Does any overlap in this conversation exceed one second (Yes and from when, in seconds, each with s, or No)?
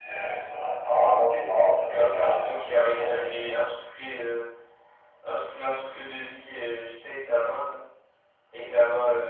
Yes, from 1.8 s